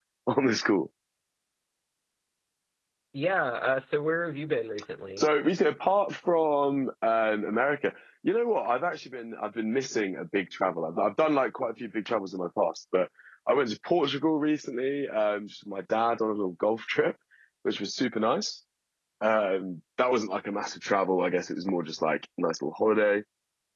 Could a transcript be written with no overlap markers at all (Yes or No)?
Yes